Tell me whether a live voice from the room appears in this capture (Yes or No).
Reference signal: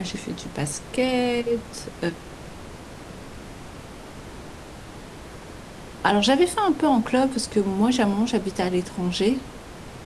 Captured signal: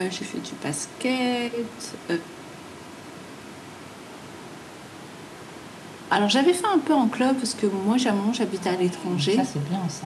Yes